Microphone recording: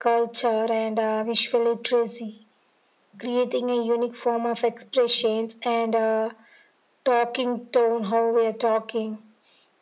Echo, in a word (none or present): present